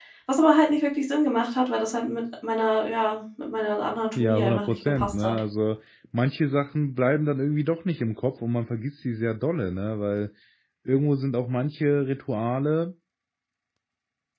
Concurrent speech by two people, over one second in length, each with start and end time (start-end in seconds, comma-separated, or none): 4.2-5.4